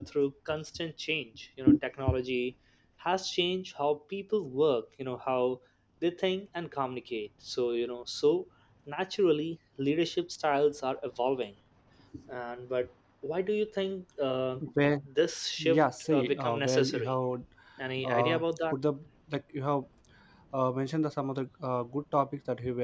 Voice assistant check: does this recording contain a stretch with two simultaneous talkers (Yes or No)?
Yes